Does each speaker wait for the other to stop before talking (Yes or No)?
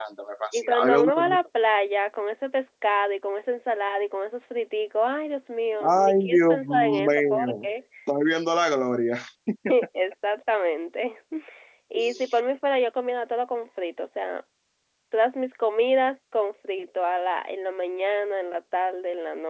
No